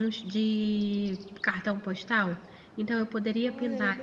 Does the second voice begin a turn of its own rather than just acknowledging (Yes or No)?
No